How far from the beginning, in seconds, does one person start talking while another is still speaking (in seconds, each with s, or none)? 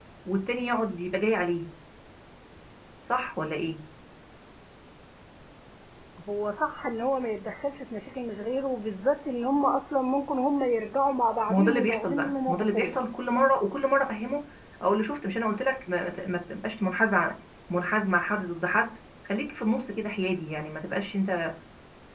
11.5 s